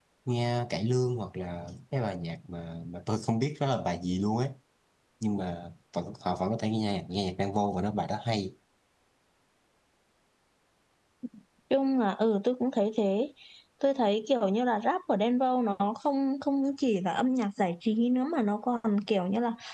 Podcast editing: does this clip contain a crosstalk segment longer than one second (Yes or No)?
No